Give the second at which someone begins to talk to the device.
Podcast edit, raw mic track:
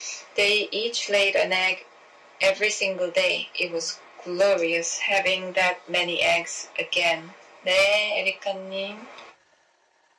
none

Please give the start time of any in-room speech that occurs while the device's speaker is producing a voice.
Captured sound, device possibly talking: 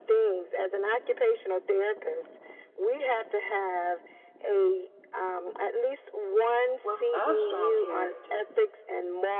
6.8 s

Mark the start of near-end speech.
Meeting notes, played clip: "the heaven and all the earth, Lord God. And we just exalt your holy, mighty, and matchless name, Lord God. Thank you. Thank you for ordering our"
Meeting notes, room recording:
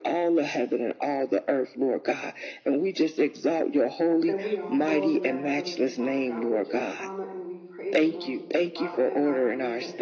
4.2 s

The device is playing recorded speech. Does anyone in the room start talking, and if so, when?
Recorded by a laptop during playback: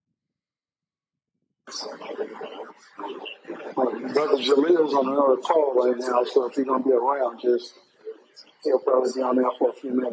none

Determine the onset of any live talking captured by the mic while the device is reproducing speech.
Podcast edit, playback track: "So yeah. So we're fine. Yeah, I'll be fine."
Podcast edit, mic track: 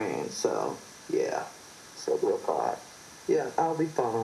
none

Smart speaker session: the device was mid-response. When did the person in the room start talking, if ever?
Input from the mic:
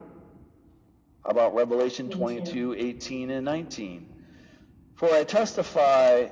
2.0 s

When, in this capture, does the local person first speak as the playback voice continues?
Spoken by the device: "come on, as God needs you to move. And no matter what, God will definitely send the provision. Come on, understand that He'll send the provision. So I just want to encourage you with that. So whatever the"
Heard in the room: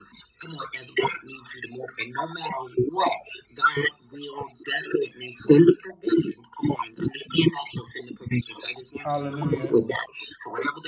9.0 s

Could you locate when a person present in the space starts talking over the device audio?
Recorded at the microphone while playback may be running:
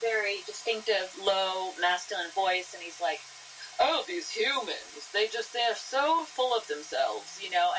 none

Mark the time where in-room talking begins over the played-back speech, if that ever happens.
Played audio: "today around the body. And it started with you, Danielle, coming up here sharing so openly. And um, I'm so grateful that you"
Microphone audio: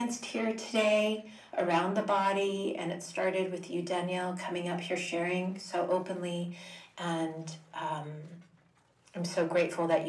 none

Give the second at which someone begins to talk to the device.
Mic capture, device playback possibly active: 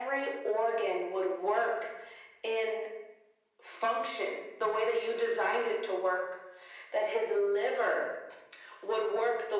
none

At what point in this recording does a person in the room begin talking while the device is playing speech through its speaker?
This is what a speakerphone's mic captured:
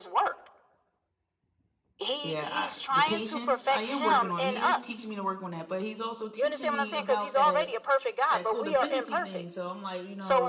2.2 s

